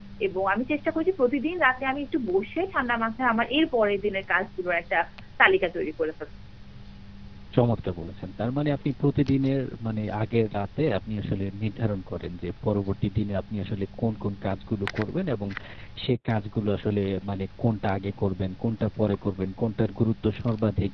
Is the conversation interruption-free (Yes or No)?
Yes